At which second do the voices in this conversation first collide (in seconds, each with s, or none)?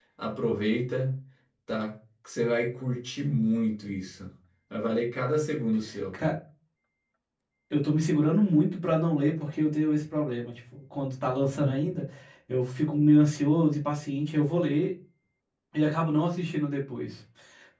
none